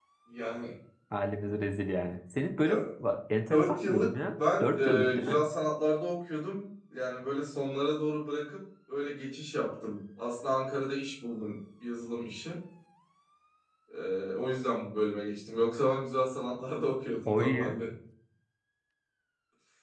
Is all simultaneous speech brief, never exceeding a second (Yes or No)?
No